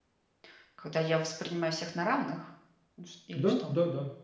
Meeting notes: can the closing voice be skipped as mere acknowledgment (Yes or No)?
No